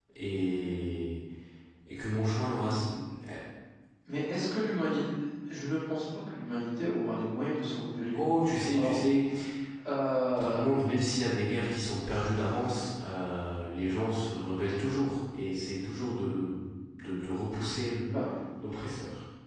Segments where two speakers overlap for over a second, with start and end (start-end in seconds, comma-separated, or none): none